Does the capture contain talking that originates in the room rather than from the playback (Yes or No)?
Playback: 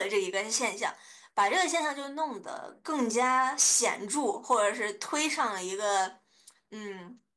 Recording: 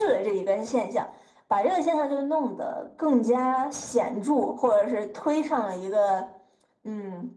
No